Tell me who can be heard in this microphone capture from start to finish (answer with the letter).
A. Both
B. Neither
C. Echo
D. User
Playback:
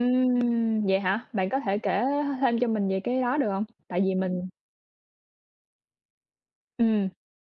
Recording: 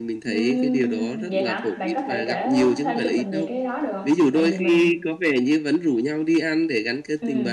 A